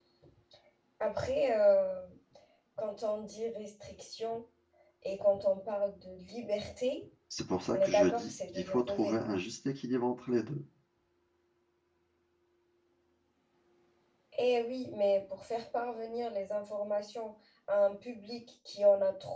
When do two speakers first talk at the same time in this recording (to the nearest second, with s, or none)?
8 s